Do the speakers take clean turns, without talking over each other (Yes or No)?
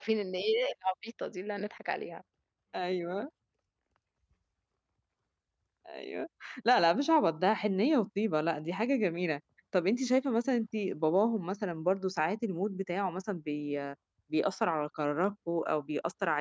Yes